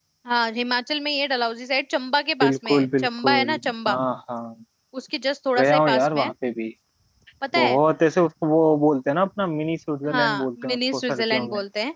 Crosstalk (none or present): present